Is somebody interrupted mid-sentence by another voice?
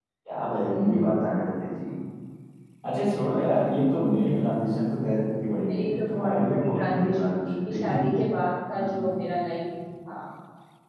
Yes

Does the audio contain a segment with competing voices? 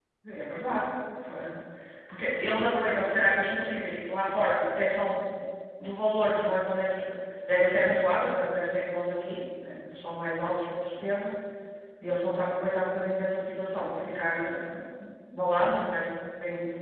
No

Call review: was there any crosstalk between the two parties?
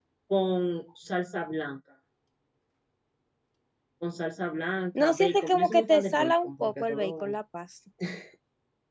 Yes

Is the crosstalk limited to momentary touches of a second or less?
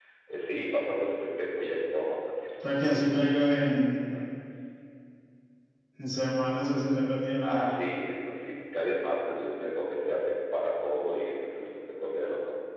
Yes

